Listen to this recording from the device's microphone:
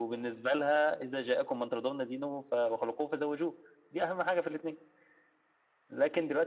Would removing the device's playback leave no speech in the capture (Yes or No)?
Yes